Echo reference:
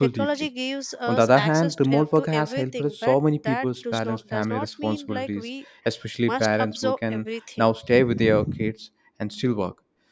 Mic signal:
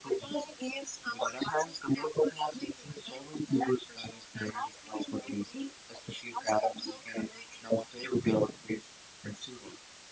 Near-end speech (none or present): none